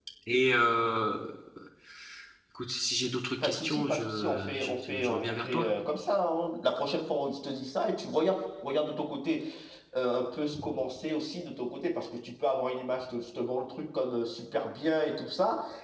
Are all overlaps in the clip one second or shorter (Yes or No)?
No